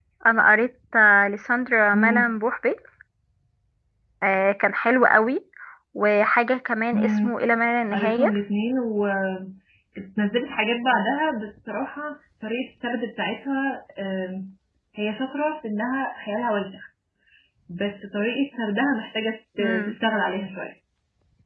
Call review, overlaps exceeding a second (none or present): none